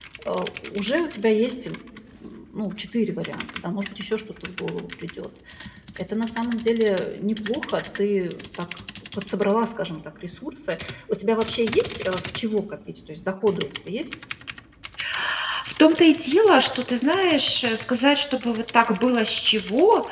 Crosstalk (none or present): none